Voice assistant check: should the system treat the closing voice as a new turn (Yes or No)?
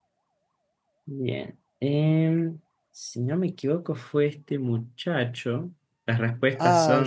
No